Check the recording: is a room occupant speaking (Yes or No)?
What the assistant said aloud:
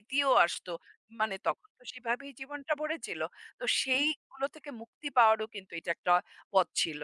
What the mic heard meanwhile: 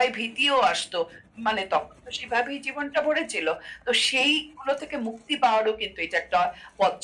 No